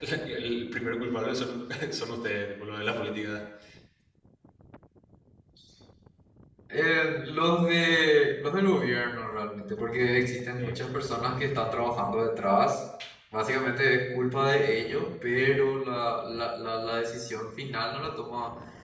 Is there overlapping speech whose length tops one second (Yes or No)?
No